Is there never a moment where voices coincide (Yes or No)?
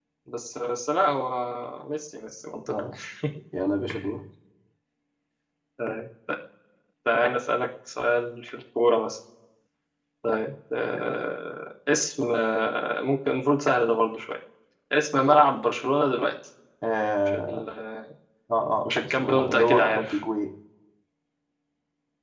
No